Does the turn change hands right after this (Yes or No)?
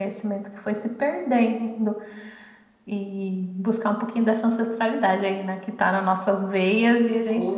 Yes